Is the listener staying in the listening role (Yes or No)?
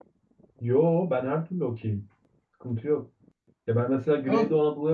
Yes